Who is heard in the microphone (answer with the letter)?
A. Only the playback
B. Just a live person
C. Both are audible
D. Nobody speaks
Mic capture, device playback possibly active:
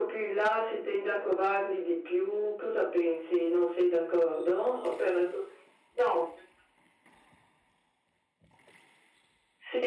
A